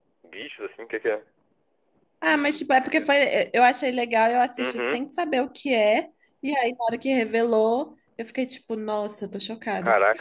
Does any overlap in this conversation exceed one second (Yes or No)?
No